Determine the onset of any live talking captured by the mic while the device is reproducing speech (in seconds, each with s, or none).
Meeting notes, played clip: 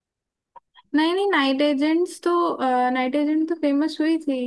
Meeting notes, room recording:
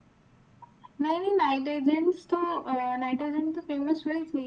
none